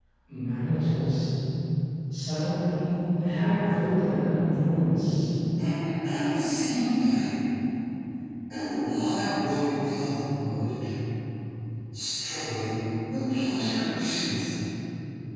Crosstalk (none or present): none